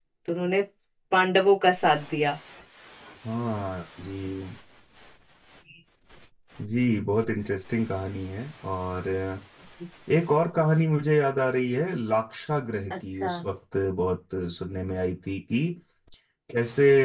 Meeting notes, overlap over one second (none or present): none